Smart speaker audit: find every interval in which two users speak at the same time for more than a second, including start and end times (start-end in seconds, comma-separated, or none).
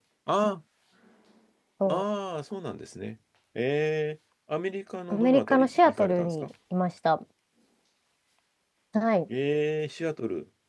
5.1-6.4